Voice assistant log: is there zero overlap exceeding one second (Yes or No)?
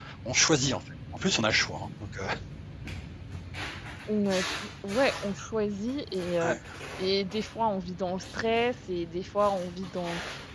Yes